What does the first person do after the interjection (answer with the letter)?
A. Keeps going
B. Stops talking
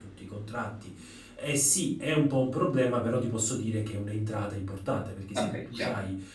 A